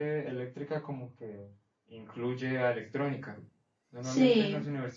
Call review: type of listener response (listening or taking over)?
listening